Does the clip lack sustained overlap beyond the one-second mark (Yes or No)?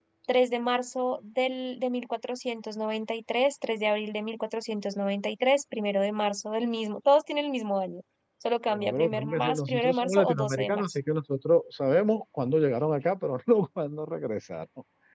No